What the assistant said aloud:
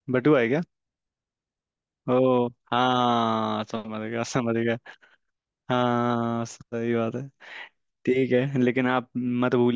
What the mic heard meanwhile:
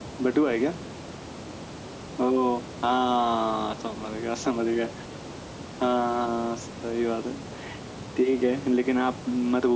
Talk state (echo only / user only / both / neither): echo only